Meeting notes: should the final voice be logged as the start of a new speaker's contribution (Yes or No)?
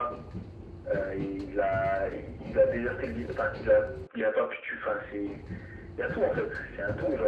Yes